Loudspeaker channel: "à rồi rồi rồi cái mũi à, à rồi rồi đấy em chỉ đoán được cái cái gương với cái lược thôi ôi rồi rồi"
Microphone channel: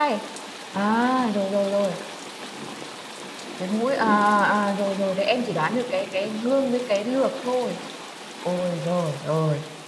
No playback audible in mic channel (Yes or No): No